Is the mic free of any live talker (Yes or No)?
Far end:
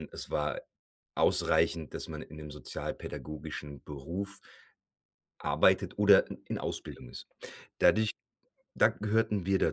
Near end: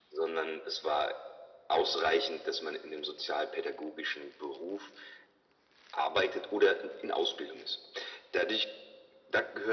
Yes